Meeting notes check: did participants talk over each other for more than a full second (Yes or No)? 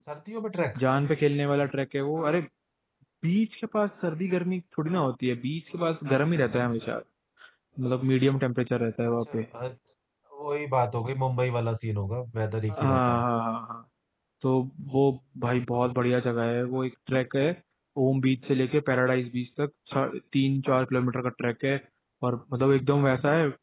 No